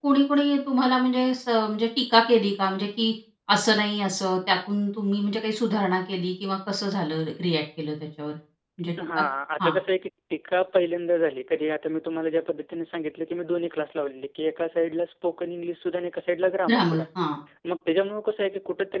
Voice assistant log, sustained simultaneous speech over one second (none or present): none